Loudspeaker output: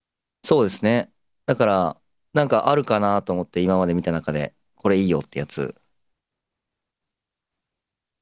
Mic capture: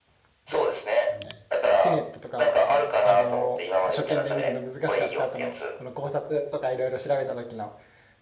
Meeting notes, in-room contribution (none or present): present